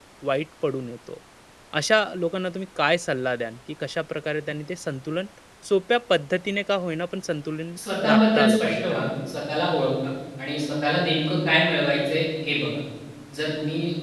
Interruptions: present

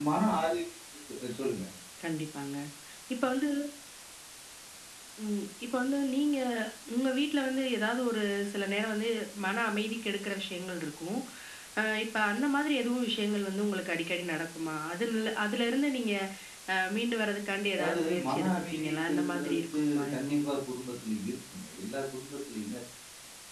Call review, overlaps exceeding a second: present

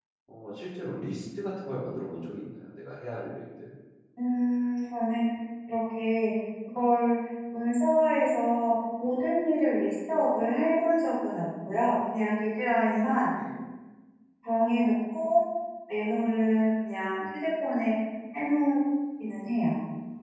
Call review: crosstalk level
none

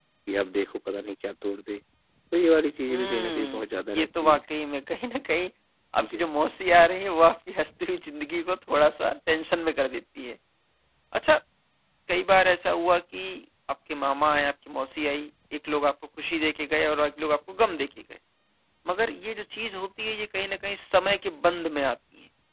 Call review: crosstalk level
present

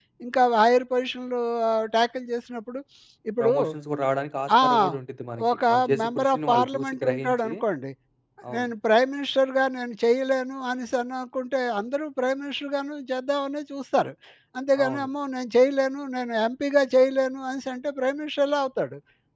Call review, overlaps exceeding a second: present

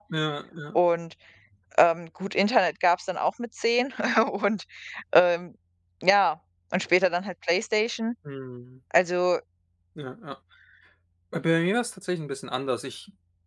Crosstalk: none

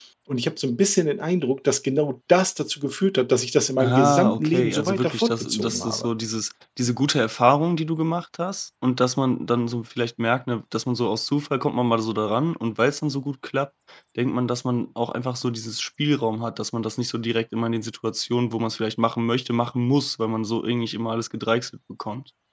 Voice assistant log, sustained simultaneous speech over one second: present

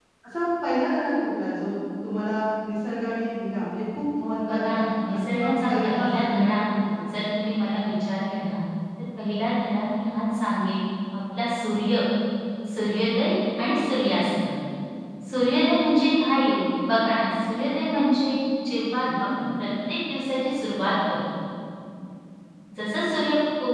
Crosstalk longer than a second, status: present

